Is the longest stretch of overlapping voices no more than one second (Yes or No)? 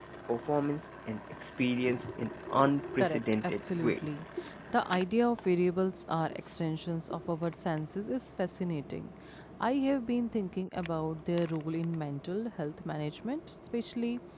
No